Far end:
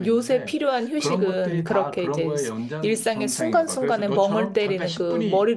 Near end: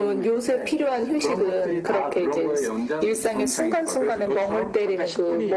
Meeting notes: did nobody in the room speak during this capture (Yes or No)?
Yes